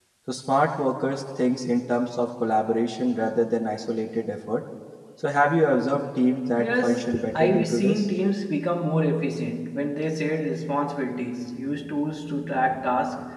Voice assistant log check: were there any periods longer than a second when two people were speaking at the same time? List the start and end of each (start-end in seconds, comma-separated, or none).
6.6-8.1